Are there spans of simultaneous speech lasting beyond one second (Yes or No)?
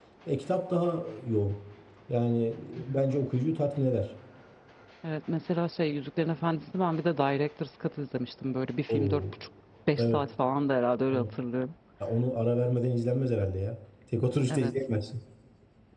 No